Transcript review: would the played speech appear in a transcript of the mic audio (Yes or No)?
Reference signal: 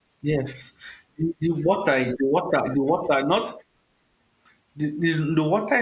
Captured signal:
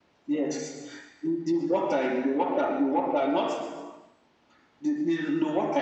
Yes